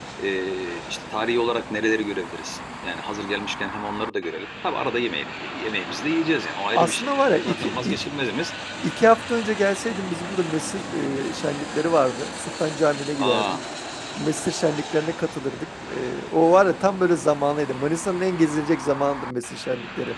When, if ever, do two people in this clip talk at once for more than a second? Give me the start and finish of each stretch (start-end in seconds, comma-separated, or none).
6.7-8.0